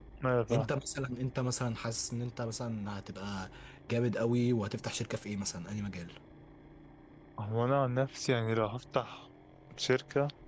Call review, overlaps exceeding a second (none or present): none